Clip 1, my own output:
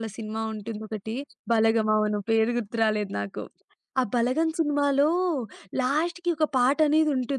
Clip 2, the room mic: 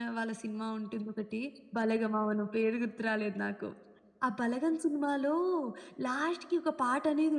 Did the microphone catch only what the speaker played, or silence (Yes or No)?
Yes